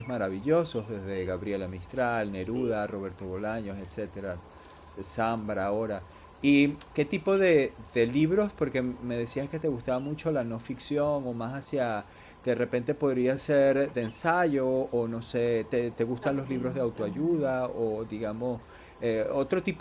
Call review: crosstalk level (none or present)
present